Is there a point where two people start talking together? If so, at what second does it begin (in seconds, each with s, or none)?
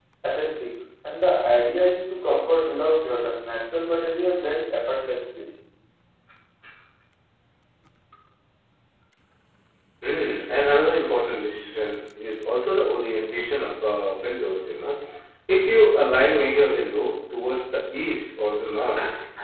none